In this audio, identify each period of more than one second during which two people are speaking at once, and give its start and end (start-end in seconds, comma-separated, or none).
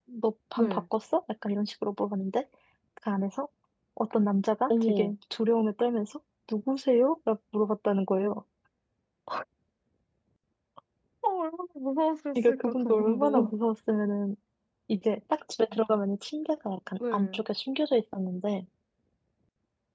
12.3-13.6